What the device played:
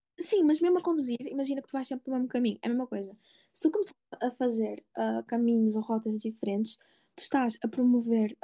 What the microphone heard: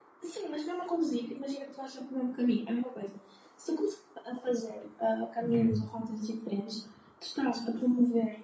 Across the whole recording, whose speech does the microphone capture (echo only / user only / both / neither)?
both